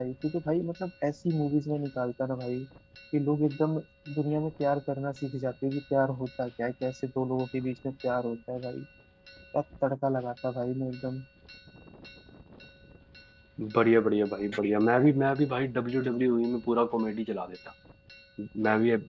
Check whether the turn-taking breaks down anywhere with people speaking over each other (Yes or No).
No